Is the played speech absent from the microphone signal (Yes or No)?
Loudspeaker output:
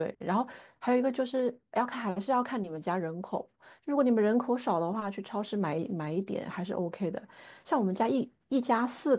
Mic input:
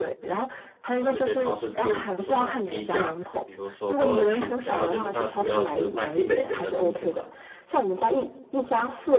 No